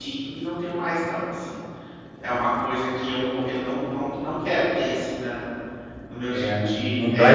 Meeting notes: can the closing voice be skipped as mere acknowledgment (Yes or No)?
No